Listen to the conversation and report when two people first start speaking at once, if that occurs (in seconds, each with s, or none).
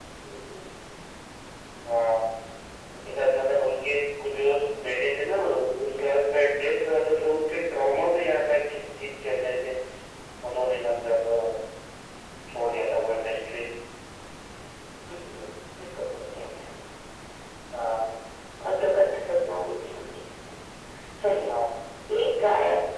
none